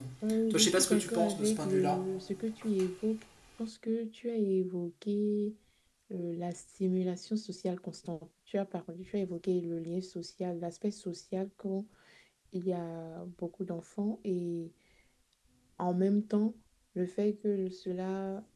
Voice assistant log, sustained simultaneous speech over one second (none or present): present